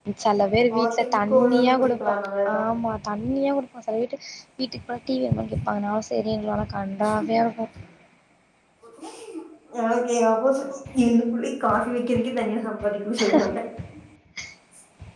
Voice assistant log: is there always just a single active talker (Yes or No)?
No